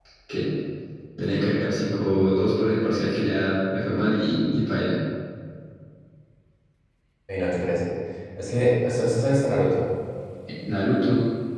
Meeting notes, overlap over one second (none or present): none